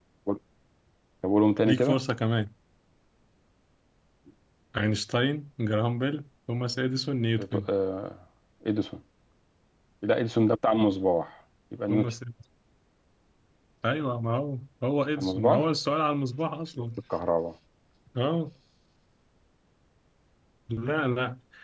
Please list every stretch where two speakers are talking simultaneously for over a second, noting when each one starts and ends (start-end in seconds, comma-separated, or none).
none